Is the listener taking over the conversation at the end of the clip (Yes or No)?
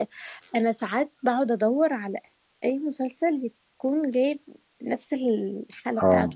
Yes